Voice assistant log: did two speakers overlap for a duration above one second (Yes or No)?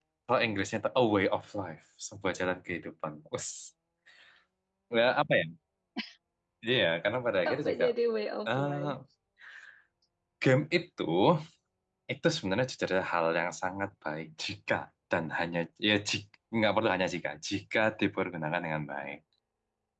No